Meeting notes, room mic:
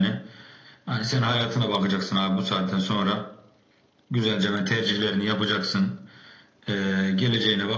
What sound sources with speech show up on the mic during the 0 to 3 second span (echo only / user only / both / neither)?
echo only